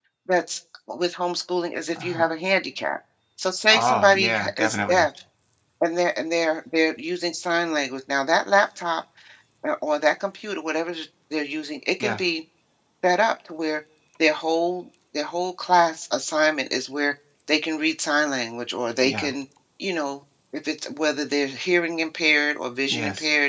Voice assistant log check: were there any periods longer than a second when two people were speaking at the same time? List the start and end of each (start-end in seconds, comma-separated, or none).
3.7-5.1